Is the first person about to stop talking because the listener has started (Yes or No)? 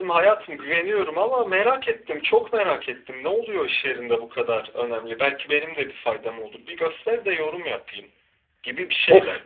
Yes